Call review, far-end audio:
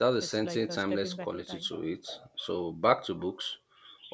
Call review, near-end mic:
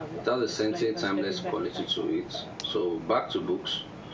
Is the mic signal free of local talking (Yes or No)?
Yes